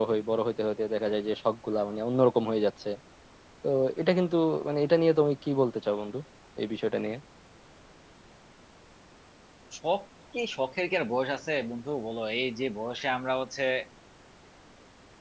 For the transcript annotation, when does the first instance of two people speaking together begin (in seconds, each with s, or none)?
none